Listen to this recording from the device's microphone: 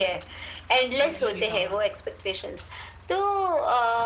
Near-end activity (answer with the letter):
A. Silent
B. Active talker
B